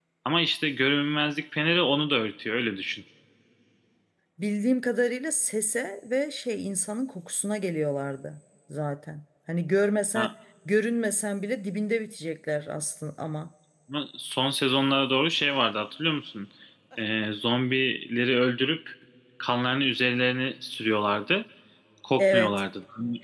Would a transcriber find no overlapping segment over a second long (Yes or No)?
Yes